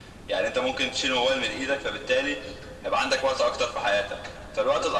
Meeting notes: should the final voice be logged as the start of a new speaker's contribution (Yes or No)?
No